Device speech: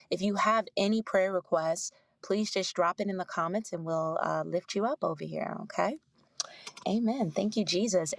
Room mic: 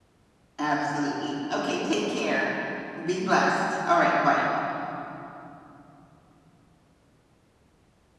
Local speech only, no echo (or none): Absolutely. Okay, take care. Be blessed. All right, bye.